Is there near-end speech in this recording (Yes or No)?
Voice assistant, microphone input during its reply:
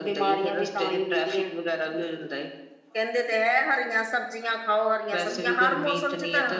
Yes